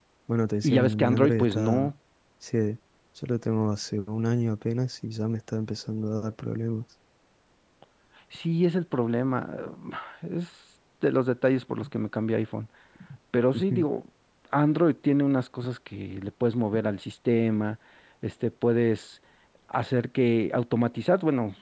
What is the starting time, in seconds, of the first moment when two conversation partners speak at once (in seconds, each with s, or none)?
0.6 s